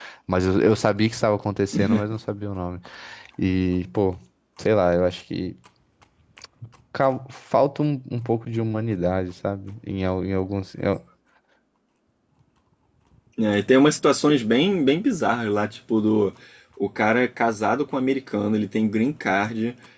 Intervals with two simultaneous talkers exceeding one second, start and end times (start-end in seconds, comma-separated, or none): none